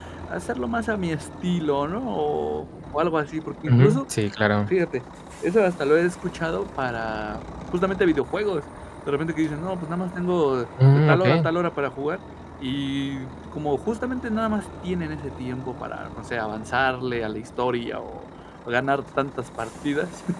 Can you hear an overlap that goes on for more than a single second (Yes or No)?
No